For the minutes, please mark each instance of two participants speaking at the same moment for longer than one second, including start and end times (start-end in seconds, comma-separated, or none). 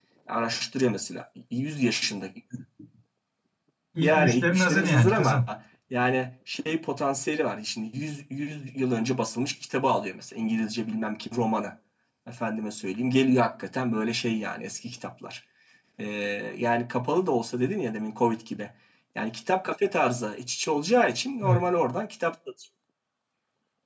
4.0-5.4